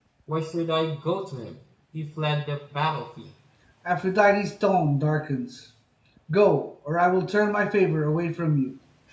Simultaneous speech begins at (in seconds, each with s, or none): none